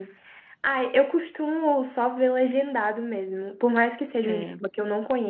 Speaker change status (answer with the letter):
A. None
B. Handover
A